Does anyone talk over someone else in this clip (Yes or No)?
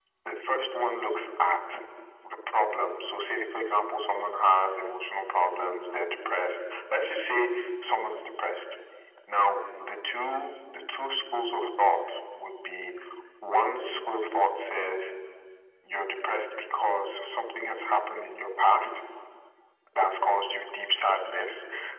No